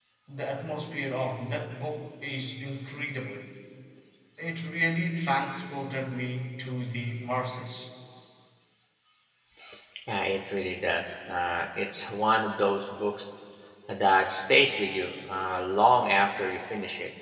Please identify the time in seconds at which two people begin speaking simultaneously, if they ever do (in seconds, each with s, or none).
none